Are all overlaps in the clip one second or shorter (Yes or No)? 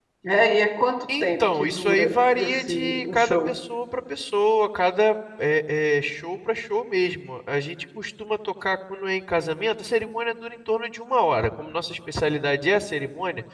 No